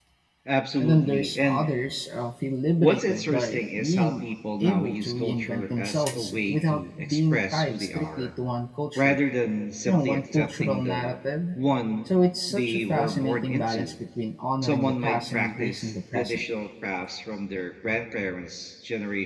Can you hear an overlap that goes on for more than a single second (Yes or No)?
Yes